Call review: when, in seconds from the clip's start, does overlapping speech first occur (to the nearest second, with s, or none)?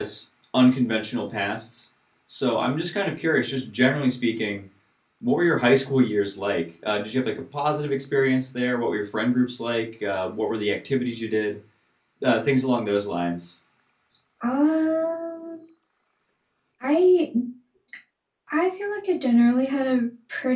none